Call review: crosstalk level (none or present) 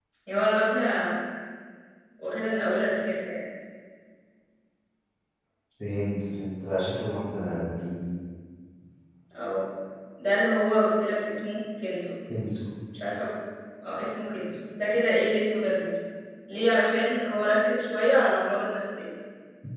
none